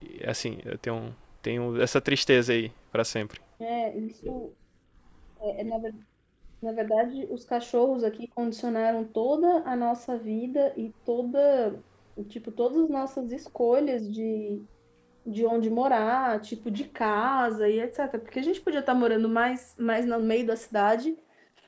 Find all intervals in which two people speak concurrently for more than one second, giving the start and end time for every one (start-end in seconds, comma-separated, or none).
none